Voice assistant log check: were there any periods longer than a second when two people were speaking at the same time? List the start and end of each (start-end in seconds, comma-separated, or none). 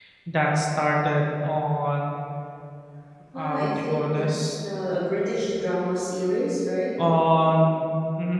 3.4-4.5